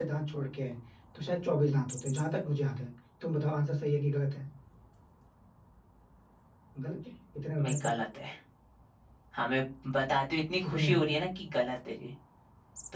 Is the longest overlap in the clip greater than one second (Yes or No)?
No